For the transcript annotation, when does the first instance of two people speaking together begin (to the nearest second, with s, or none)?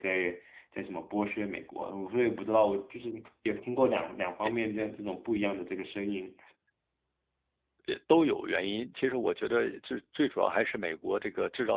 none